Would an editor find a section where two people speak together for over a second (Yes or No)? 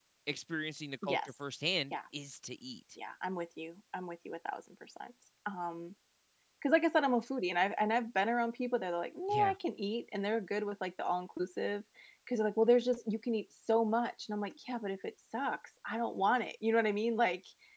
No